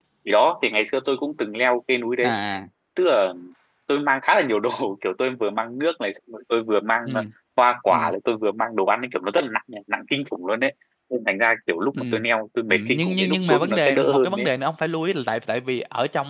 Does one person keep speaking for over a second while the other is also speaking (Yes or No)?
Yes